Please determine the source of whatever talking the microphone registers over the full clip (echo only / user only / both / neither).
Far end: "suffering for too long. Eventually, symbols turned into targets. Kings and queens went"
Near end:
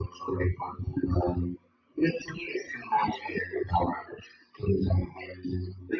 echo only